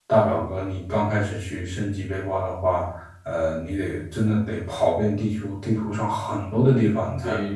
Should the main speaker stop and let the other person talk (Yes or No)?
No